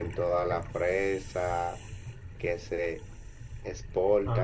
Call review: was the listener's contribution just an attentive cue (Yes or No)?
Yes